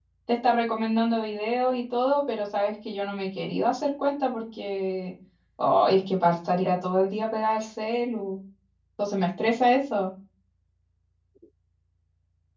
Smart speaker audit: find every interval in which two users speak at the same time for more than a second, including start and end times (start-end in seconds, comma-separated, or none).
none